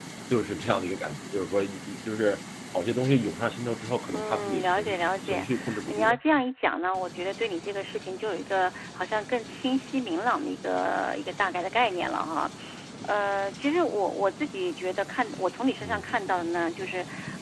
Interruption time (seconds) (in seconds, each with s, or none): 4.1 s